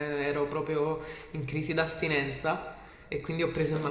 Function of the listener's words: listening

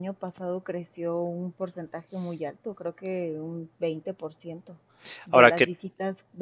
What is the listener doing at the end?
listening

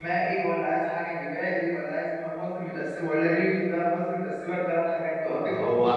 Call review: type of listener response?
taking over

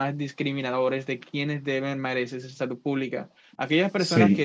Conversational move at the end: listening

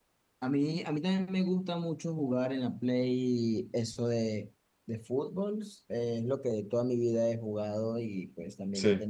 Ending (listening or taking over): listening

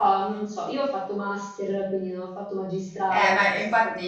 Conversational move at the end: taking over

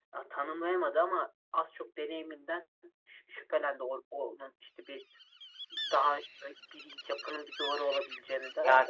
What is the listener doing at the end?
taking over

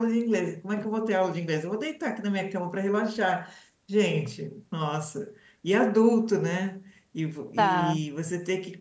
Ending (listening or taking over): listening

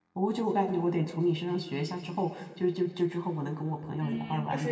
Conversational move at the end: taking over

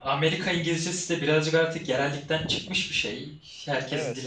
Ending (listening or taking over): taking over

